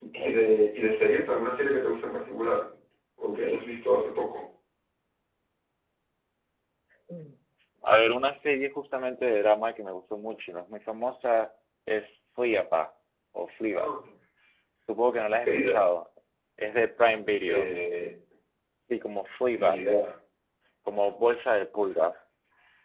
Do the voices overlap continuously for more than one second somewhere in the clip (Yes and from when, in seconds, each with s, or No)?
No